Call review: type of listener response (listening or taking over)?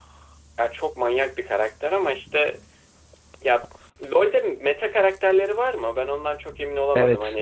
taking over